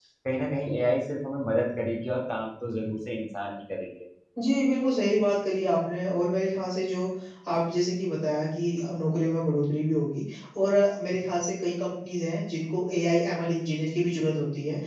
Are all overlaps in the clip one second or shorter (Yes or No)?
Yes